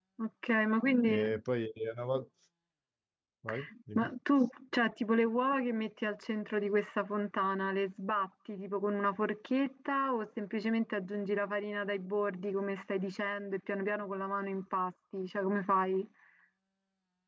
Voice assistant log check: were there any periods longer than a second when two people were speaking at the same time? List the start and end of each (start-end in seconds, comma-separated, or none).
none